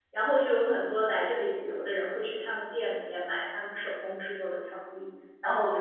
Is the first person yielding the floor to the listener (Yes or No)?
No